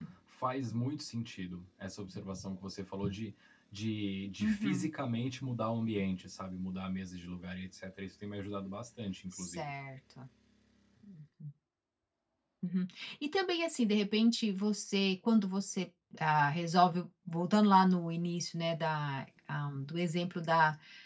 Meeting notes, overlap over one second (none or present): none